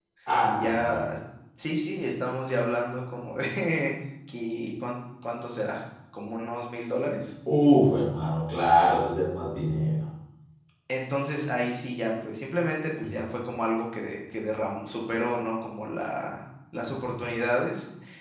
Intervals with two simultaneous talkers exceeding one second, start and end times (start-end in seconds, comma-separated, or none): none